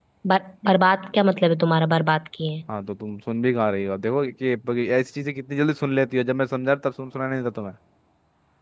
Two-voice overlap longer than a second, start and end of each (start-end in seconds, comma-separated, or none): none